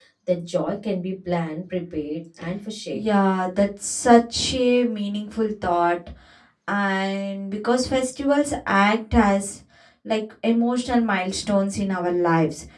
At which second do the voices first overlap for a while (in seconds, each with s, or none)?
none